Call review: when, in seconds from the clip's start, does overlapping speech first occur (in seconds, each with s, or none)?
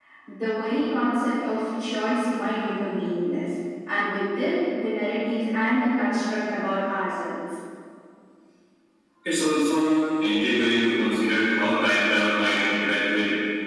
none